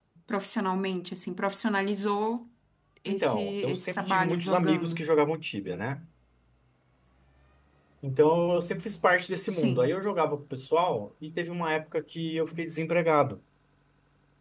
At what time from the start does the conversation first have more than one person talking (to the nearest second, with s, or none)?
3 s